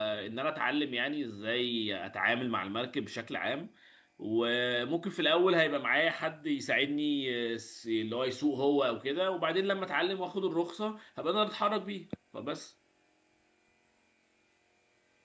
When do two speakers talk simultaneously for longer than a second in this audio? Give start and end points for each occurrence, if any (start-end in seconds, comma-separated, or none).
none